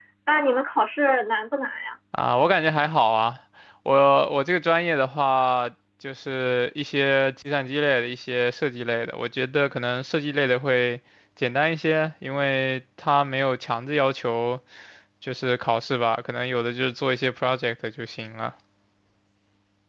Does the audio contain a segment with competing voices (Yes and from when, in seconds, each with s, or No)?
No